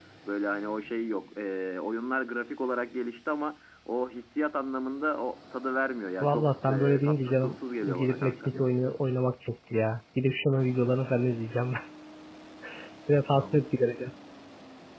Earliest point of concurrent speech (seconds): 6.2 s

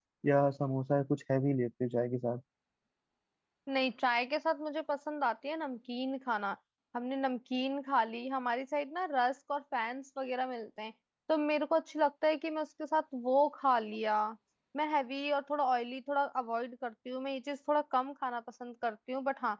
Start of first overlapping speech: none

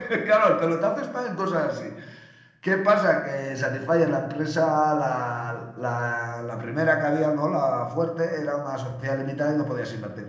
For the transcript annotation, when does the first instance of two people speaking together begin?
none

